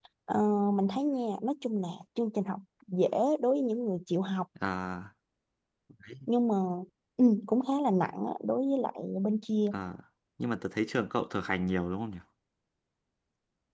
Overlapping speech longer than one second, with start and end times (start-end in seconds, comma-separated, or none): none